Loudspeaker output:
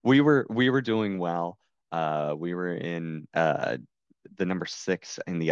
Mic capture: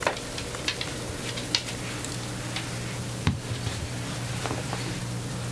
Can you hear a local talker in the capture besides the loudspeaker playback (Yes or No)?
No